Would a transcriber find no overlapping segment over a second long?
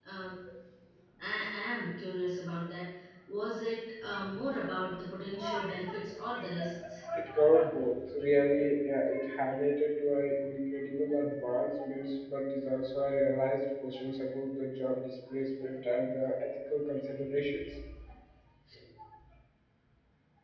Yes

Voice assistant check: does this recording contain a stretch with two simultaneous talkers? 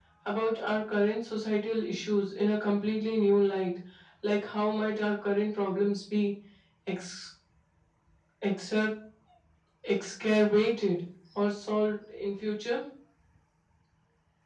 No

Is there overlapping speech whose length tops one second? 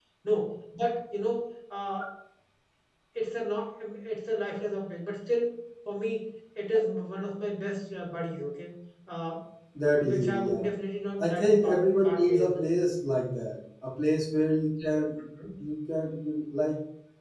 Yes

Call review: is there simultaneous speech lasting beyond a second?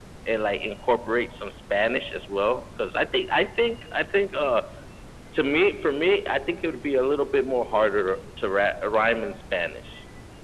No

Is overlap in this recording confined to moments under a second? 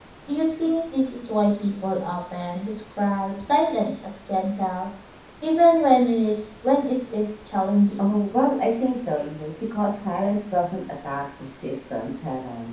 Yes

